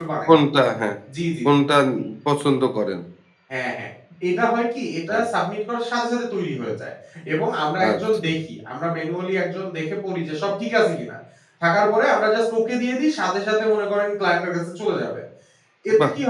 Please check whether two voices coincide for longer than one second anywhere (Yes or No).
No